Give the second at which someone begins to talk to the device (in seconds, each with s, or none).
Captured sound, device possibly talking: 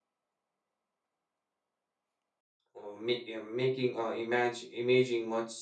2.7 s